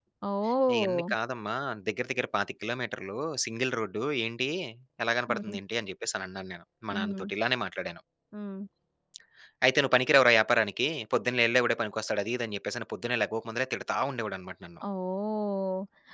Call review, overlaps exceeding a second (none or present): none